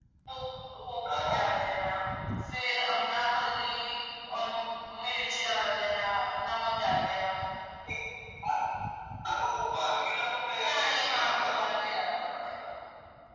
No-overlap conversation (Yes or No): No